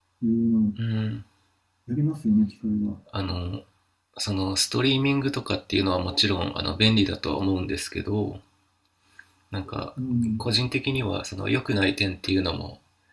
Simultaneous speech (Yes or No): No